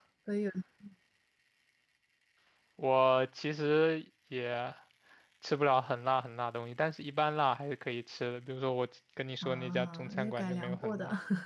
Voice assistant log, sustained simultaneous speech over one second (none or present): present